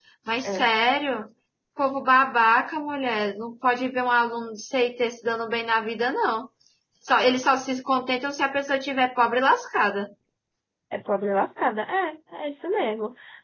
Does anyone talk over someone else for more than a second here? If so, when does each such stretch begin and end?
none

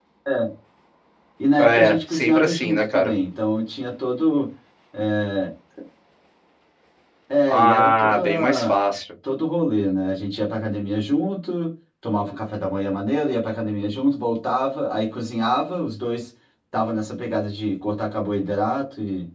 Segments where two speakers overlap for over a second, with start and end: 1.6-3.1, 7.5-8.8

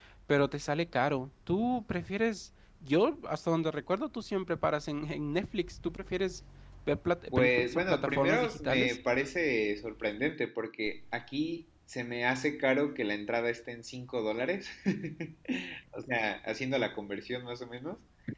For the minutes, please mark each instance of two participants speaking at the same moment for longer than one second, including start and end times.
7.3-9.0

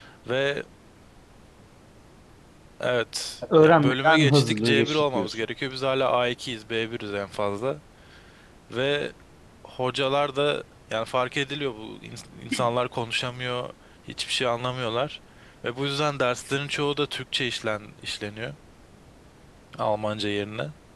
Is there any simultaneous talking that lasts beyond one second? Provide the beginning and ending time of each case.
3.6-5.3

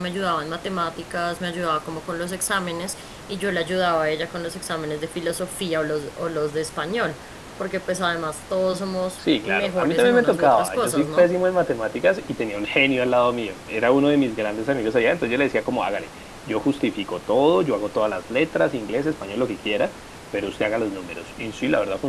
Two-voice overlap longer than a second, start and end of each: 9.4-11.3

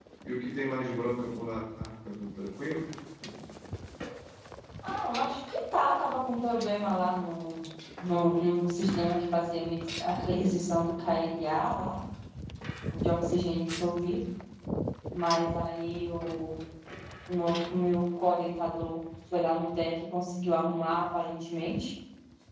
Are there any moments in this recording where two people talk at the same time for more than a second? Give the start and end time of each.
none

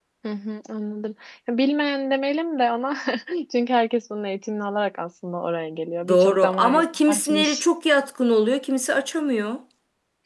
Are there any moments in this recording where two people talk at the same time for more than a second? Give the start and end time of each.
6.1-7.6

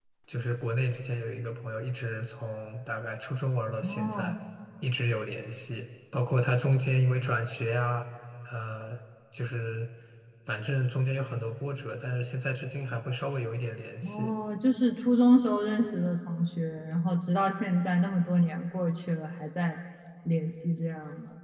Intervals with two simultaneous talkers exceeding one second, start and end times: none

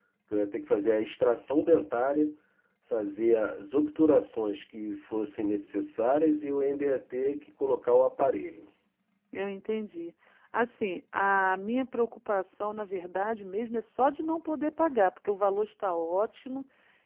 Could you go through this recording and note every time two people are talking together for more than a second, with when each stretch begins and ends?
none

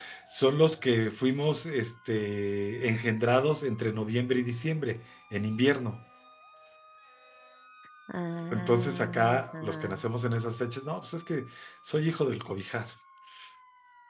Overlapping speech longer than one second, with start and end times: 8.5-10.0

